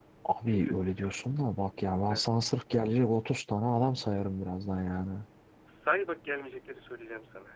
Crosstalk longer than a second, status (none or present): none